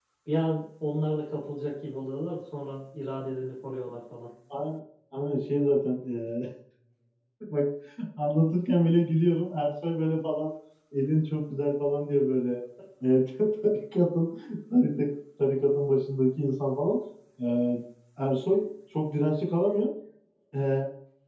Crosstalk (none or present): none